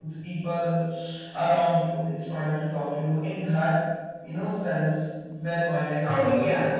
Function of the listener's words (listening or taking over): taking over